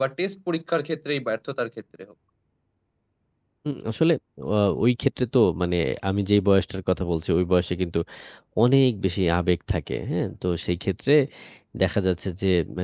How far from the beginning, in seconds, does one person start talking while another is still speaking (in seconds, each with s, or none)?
none